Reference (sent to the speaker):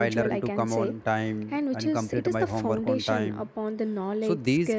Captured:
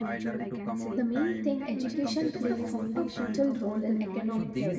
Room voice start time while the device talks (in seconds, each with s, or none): 0.9 s